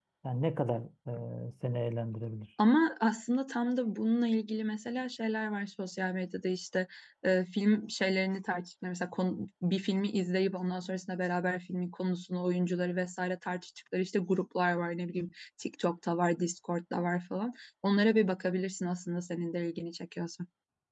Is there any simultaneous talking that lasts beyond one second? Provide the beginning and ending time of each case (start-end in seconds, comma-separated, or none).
none